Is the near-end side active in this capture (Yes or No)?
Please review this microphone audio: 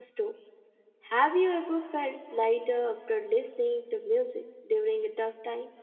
Yes